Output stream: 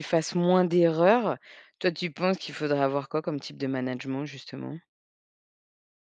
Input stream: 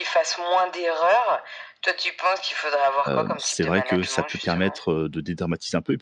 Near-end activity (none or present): present